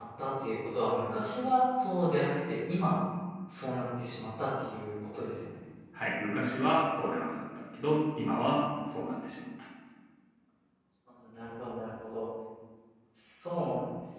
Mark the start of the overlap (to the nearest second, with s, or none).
none